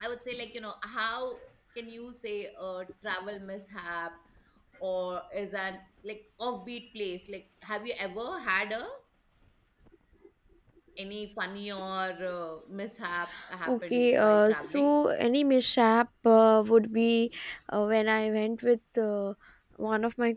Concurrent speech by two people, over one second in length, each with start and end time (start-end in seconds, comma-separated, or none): 13.7-14.9